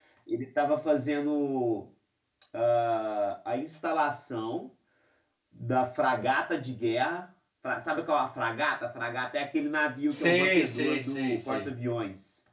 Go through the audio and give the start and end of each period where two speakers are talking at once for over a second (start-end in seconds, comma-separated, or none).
10.1-11.7